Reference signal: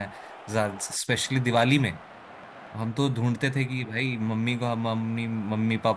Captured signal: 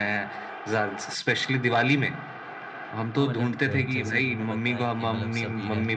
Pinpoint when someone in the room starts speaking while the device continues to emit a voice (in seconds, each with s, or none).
3.2 s